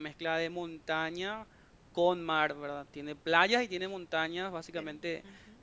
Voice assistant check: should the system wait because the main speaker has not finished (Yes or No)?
Yes